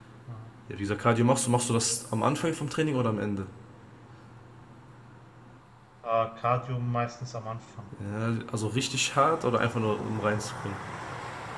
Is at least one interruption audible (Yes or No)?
No